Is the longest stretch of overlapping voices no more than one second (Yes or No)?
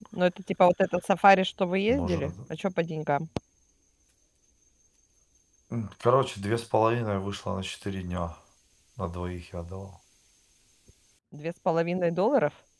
Yes